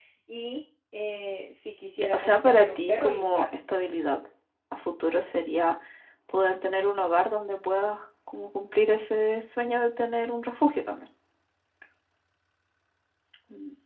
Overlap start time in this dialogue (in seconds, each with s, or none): 2.0 s